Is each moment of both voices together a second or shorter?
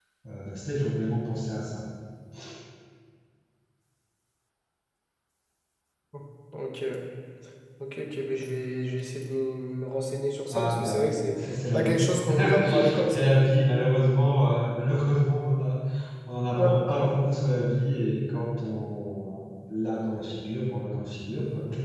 No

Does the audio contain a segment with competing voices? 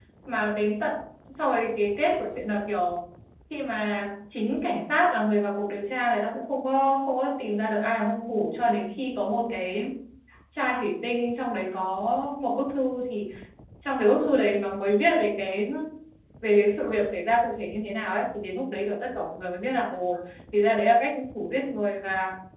No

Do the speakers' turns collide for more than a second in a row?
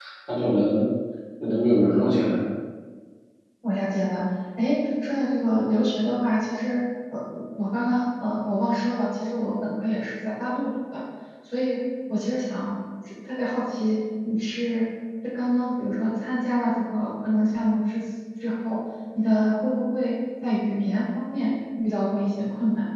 No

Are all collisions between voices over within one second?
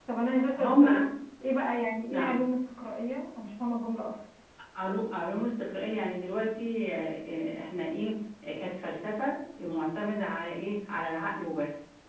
Yes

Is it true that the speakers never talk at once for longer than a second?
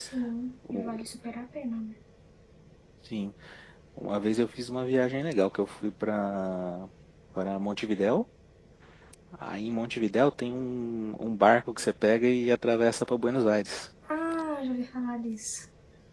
Yes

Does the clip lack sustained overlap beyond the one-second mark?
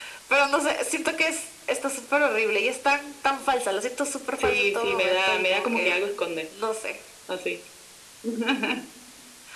No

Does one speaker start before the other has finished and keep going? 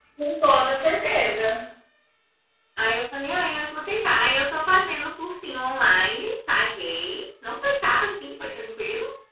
No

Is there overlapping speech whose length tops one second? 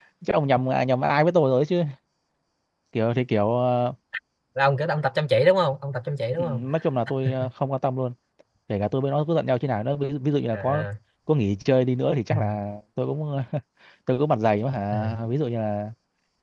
No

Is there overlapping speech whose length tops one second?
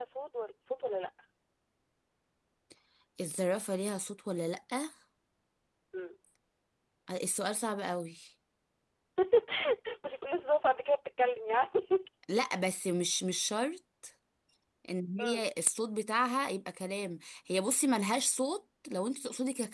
No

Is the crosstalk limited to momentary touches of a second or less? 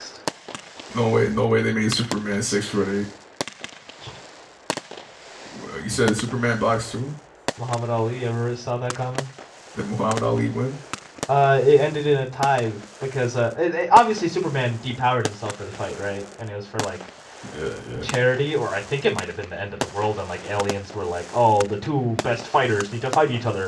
Yes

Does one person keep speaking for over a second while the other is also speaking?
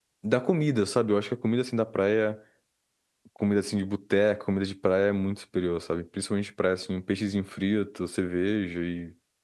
No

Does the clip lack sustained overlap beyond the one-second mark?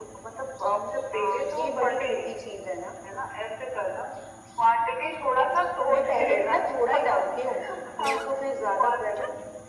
No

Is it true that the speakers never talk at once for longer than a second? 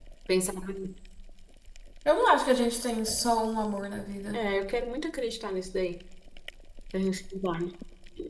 Yes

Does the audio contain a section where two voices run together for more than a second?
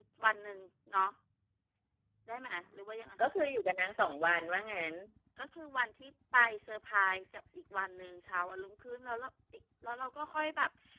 No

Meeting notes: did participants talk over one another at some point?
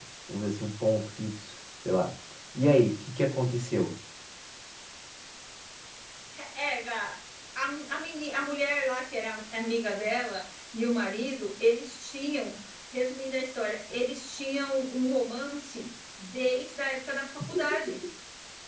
No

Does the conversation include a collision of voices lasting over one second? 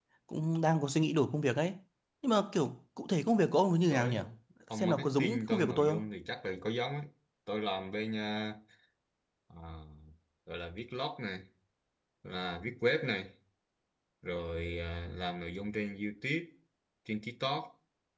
Yes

